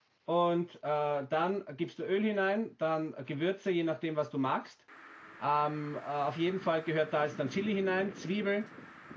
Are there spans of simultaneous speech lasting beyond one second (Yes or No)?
No